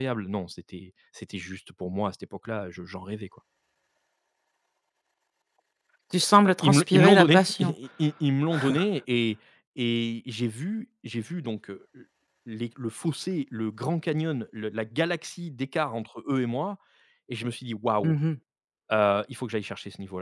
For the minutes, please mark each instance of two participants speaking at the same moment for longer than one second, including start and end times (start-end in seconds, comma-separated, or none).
6.4-7.7